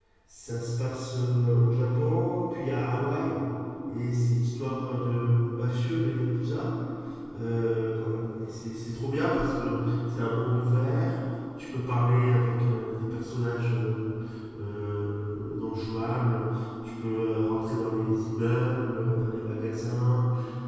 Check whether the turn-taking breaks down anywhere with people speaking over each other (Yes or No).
No